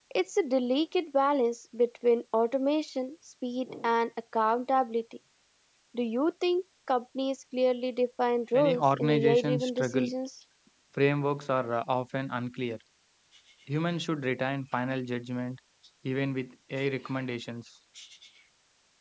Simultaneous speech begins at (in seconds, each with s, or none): 8.5 s